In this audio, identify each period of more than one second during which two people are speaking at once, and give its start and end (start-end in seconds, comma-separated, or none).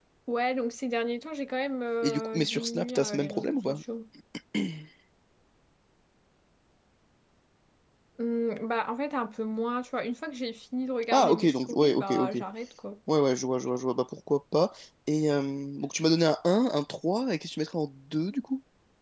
2.0-3.8, 11.1-12.3